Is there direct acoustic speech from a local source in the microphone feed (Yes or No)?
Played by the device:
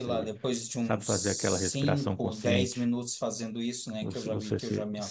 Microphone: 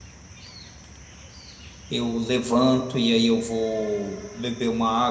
Yes